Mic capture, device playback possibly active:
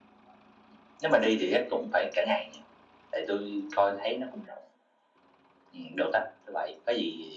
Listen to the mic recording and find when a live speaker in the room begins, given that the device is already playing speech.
none

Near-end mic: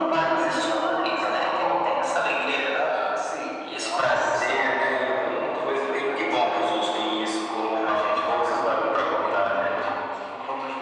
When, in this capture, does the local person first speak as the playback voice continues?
none

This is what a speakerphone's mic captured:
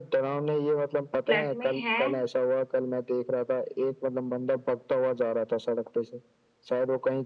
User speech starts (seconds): 1 s

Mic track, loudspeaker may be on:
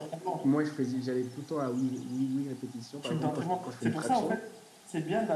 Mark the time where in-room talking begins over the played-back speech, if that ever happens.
0 s

